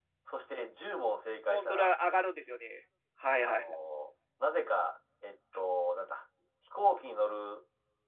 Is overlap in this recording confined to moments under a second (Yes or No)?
Yes